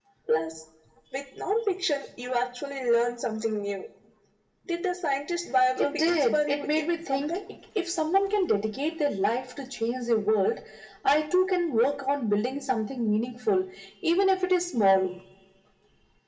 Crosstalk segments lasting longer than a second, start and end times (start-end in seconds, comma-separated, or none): 5.8-7.4